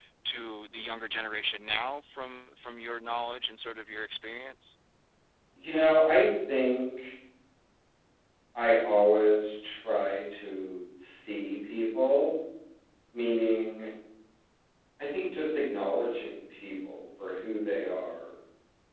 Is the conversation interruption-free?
Yes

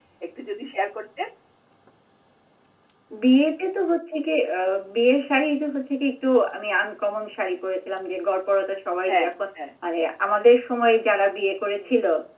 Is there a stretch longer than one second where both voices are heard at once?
No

